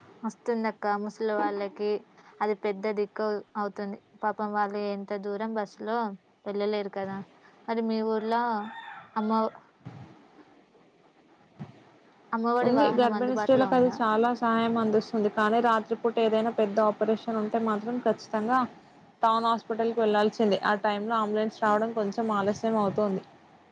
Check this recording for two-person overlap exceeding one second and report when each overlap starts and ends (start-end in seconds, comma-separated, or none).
12.7-14.0